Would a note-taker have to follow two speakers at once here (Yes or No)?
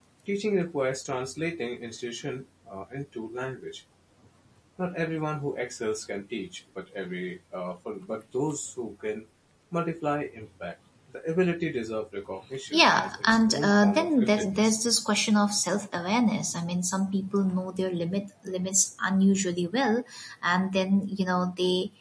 Yes